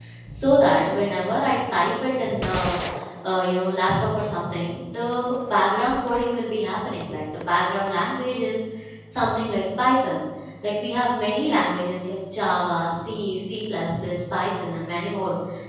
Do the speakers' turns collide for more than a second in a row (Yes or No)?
No